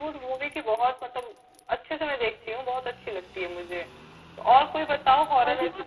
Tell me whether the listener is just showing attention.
Yes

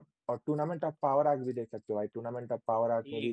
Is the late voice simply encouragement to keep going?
No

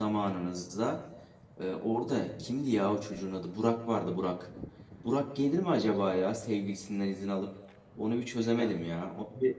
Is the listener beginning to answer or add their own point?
No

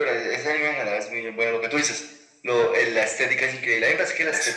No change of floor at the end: Yes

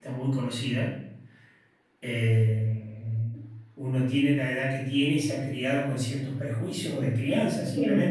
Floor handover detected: No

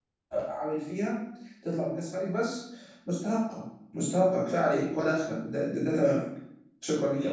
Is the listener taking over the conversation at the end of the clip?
Yes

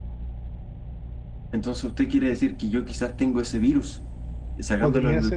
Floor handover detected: No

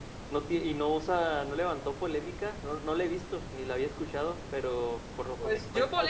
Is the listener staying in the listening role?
No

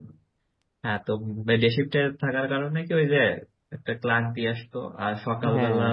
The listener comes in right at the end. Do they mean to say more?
No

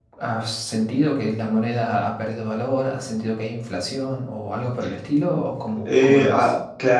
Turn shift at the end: Yes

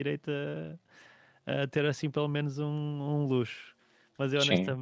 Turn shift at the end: No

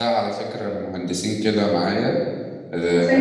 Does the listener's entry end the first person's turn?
No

